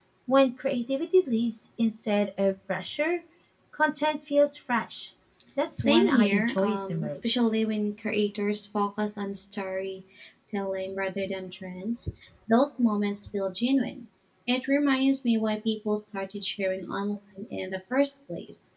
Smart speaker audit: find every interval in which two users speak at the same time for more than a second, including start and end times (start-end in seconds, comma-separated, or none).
5.8-7.3